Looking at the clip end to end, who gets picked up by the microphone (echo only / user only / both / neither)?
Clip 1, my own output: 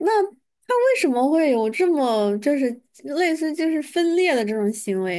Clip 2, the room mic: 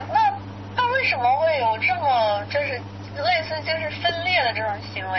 echo only